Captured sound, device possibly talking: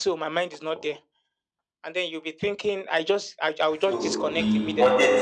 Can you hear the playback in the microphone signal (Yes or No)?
Yes